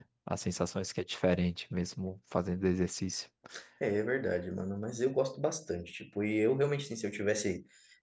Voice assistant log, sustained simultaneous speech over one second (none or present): none